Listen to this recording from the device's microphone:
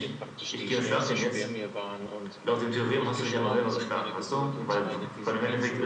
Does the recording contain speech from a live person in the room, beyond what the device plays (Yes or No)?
Yes